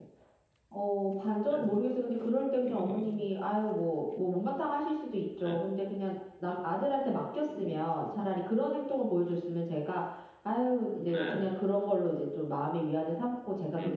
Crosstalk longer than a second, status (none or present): none